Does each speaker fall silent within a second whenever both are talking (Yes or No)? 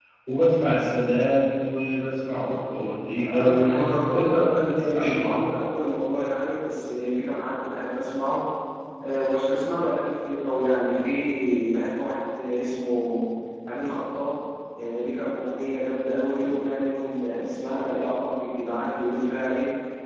No